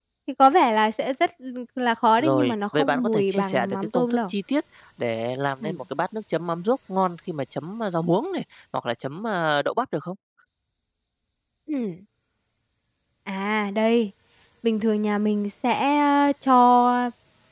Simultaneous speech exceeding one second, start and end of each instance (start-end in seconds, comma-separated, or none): 2.2-4.3